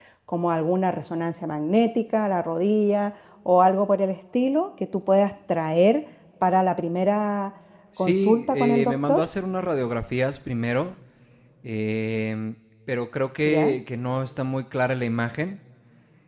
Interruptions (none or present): present